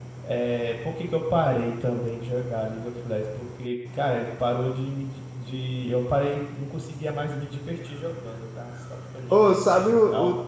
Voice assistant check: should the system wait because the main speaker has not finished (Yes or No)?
No